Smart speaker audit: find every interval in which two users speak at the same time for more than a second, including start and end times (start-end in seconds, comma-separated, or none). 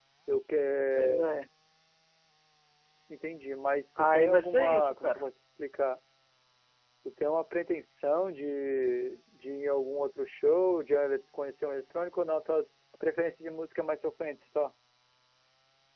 4.0-5.2